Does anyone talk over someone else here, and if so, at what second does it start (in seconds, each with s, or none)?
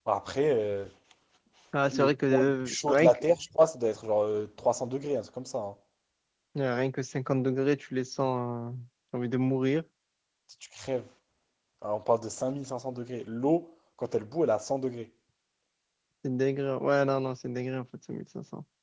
1.9 s